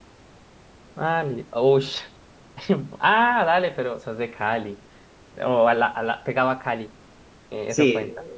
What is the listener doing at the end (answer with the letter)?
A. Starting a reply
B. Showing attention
A